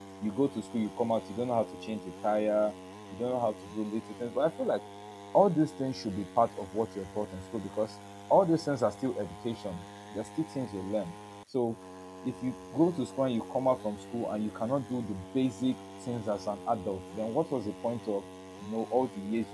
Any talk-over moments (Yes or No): No